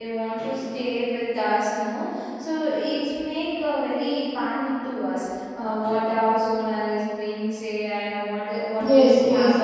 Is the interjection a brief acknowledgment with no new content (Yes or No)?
No